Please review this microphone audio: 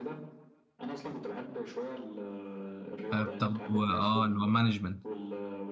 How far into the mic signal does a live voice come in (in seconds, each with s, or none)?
3.1 s